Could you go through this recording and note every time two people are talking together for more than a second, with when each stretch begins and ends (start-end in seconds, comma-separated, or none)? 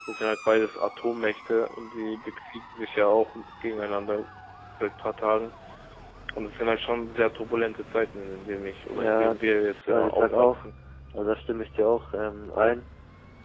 8.9-10.6